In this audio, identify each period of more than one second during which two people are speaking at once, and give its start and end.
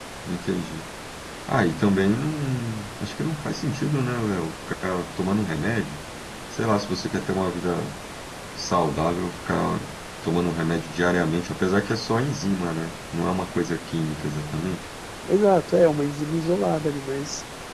none

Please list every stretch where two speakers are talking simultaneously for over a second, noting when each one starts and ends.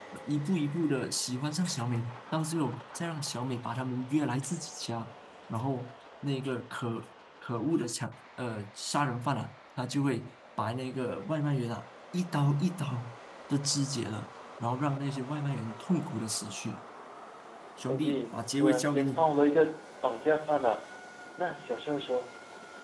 17.8-19.3

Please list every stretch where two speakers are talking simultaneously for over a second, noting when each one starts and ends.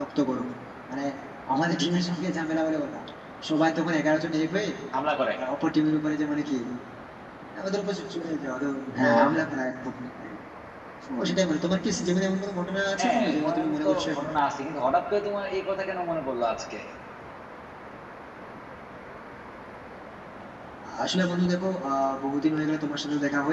13.0-14.3

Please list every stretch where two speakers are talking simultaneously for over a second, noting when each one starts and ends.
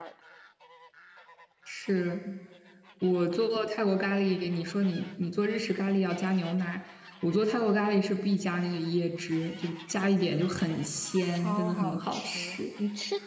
11.3-12.6

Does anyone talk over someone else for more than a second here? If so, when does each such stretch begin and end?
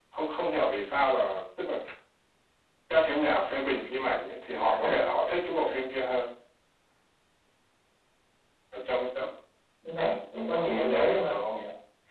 10.3-11.6

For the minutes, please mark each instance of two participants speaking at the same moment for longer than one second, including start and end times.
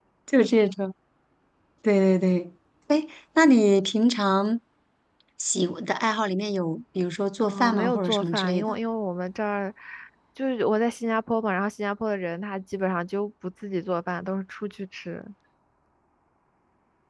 7.4-8.8

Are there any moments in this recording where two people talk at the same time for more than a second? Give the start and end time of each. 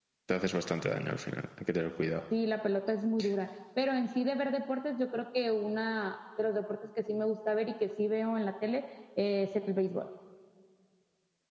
none

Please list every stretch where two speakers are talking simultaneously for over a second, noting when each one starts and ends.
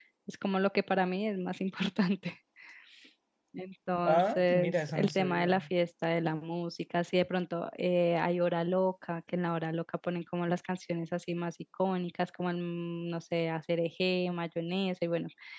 4.0-5.5

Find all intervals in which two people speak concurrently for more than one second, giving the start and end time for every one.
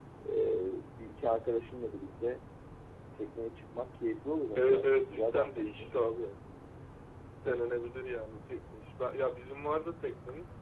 4.6-5.9

